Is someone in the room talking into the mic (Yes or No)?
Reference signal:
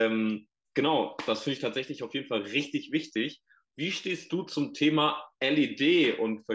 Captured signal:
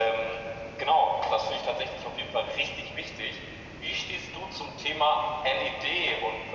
No